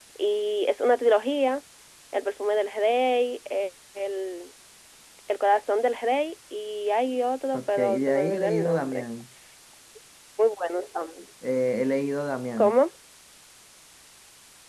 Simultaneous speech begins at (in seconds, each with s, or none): 7.5 s